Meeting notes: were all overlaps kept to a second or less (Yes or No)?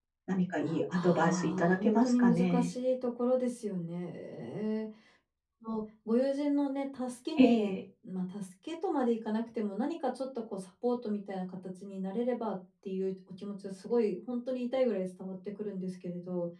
No